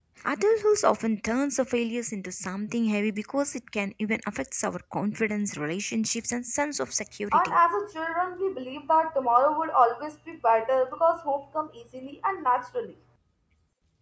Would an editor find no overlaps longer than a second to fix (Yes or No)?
Yes